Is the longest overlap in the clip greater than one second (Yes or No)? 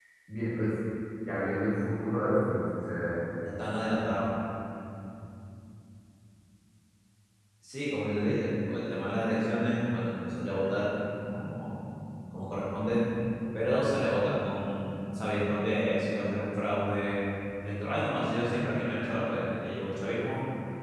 No